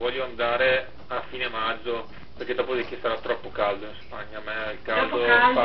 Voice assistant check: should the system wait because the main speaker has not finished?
No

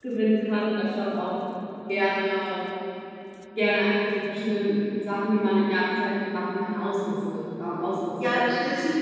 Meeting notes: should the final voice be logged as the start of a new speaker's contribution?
Yes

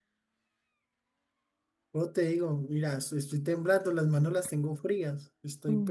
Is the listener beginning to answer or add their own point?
Yes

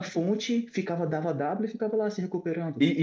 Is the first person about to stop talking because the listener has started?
Yes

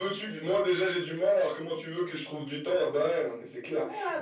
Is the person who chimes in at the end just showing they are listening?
No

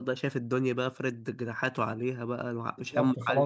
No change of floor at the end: No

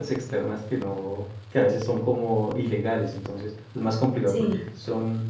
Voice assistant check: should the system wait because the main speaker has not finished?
Yes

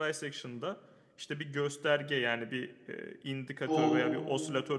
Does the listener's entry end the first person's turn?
No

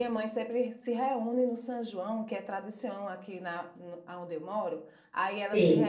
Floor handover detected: No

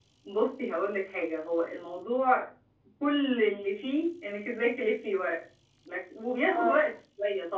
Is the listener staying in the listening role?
Yes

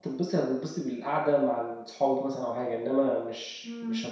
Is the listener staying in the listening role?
No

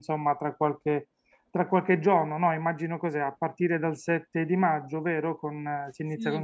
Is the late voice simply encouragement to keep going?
No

